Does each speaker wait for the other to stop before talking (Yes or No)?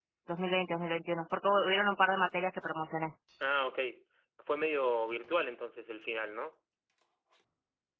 Yes